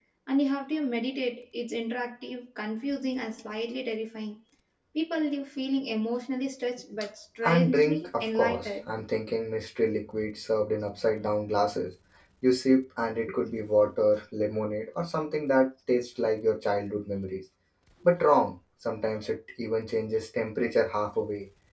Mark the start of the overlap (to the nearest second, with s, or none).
7 s